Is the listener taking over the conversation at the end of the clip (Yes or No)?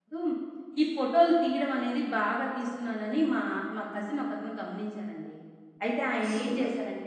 Yes